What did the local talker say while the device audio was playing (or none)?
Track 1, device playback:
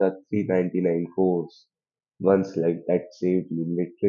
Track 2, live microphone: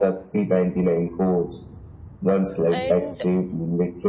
And